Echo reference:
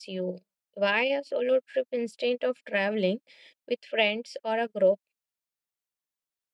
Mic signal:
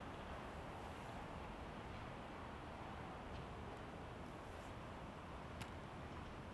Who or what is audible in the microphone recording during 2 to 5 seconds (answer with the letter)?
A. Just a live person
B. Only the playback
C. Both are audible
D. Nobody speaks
D